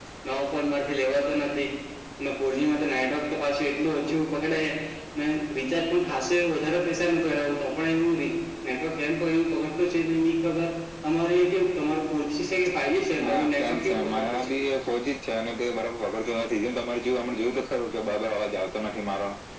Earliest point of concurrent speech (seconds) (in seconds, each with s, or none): 13.2 s